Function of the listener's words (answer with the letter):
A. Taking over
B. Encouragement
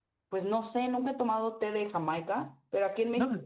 B